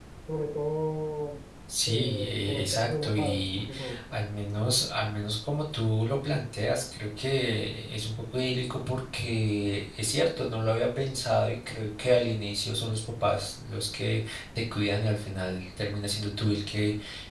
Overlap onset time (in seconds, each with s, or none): 1.7 s